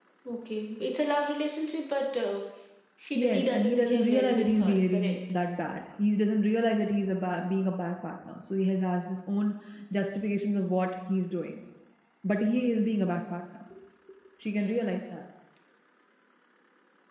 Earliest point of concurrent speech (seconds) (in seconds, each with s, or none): 3.2 s